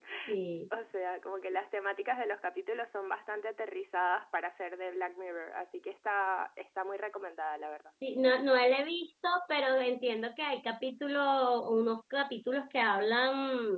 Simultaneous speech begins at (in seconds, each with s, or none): none